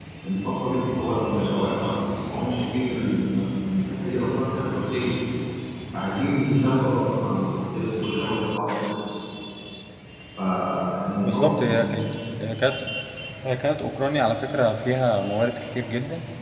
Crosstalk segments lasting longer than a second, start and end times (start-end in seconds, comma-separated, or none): none